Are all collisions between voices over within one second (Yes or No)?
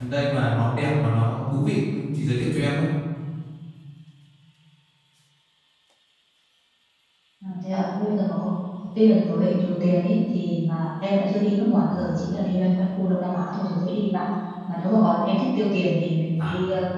Yes